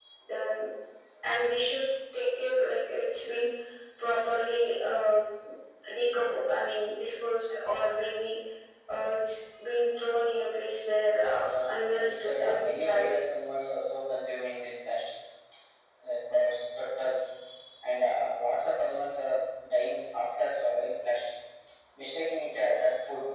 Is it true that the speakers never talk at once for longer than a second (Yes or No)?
No